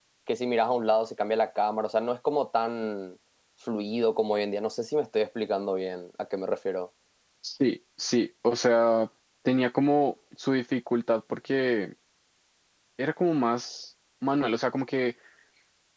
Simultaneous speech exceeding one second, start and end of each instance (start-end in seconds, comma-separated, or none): none